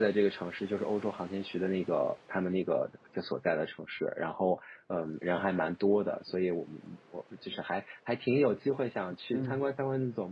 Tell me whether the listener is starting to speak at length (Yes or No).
No